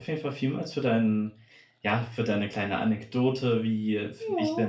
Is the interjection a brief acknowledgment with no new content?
Yes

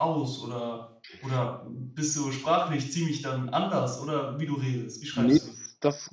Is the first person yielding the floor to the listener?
Yes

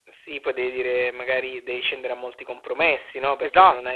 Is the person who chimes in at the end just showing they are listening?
Yes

